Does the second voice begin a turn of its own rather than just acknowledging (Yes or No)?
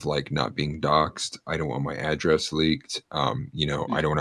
No